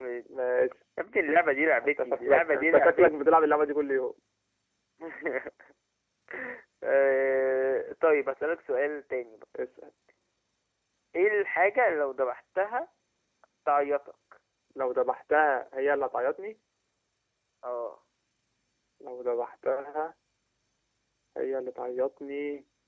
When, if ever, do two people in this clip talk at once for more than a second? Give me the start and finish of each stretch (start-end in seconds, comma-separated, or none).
2.0-3.4